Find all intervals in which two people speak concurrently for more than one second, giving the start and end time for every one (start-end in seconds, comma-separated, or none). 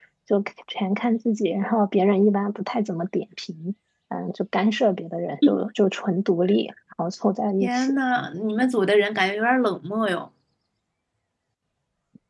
none